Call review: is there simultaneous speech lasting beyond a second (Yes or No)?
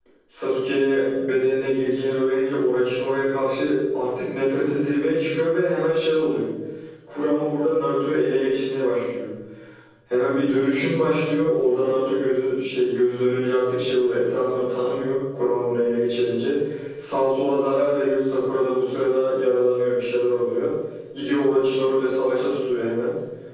No